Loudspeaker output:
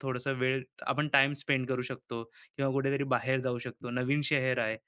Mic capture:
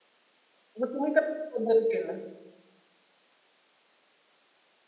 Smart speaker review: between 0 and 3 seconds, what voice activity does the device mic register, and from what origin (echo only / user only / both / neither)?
user only